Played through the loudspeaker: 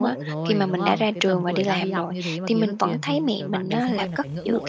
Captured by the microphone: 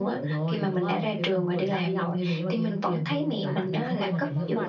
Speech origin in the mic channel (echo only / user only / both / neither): both